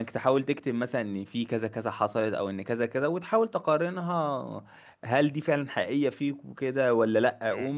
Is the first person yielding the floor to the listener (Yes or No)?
No